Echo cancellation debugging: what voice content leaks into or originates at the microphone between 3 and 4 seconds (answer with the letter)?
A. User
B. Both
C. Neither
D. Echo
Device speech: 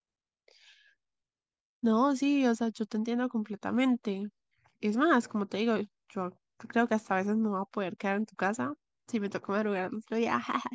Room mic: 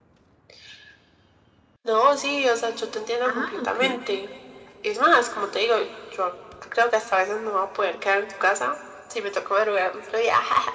B